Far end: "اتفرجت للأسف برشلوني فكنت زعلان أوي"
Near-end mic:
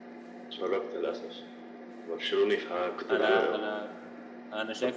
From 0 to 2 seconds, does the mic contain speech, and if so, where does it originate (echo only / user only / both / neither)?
echo only